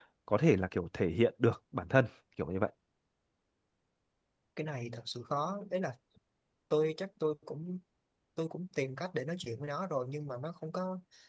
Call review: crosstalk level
none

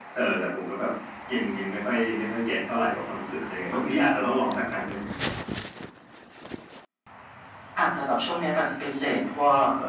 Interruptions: none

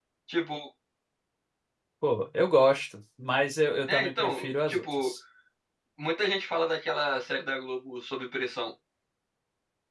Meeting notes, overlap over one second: present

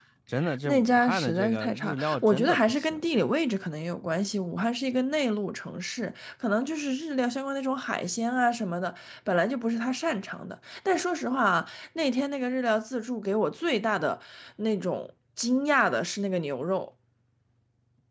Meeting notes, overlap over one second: present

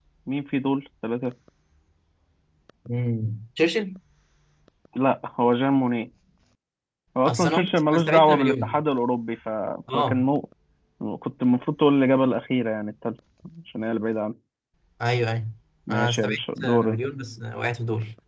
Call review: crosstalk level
present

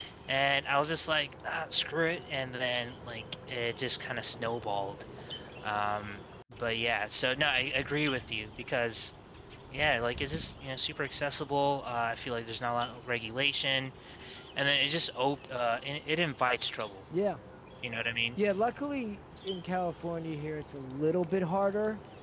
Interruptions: none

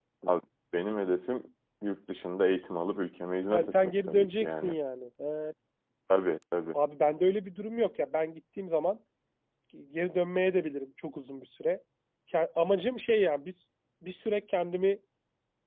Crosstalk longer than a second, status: present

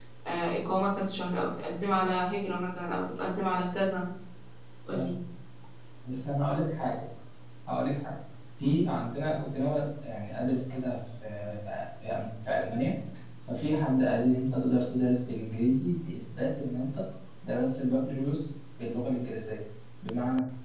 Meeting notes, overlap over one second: none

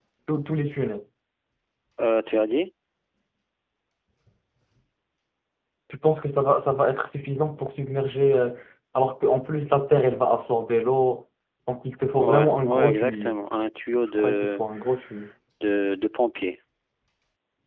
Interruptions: present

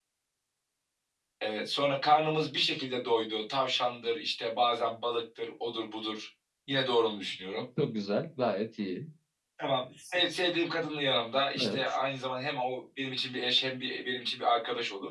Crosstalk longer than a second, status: none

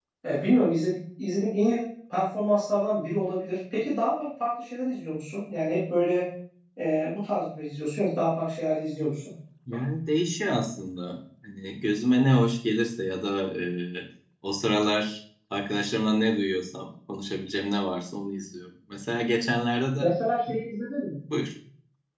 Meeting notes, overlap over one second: none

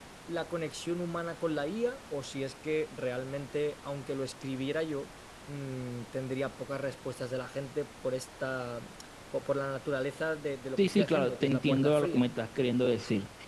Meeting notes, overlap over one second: present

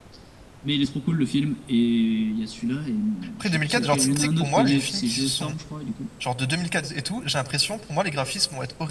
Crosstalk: present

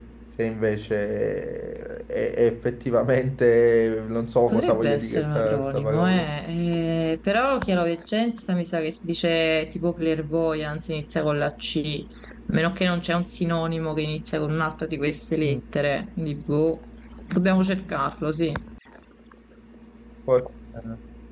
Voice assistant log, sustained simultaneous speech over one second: present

